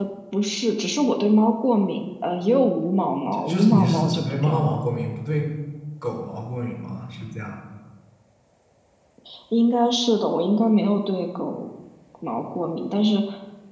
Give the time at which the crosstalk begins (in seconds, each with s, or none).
3.4 s